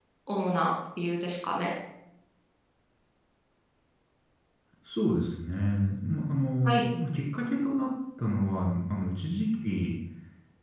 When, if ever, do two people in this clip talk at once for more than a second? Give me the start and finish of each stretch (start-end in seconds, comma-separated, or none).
none